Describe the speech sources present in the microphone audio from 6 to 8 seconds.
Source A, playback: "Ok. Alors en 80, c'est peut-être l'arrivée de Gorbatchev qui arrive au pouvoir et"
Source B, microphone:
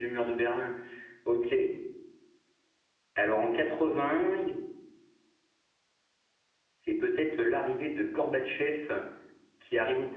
echo only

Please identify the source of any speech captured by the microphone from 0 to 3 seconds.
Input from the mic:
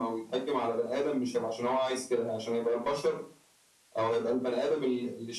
echo only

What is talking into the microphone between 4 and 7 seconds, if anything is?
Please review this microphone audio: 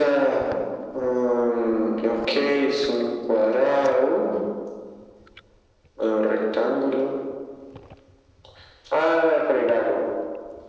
echo only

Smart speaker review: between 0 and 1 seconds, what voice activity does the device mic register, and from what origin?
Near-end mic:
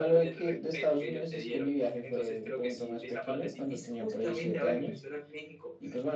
echo only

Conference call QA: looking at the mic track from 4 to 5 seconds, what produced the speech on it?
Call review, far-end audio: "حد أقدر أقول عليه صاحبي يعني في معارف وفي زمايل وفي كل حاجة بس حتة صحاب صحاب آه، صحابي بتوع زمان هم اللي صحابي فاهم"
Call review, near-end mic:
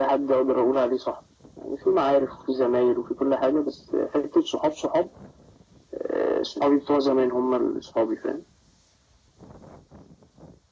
echo only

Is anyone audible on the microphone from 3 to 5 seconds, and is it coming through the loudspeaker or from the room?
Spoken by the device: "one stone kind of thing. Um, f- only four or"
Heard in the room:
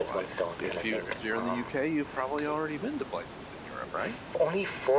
both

